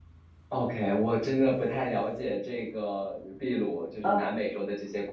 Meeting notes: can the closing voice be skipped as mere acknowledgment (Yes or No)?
Yes